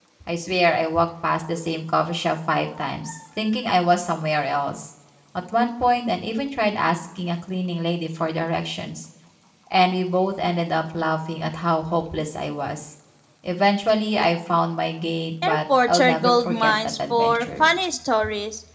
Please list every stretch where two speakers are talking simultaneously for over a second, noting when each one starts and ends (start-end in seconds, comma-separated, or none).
15.4-17.7